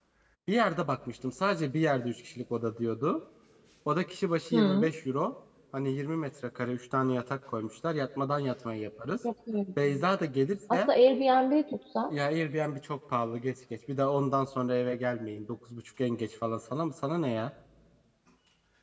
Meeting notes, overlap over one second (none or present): none